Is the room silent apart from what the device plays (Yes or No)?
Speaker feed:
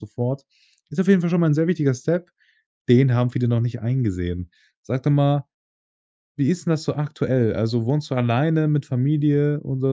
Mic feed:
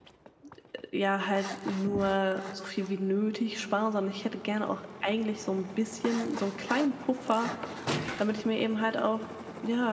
No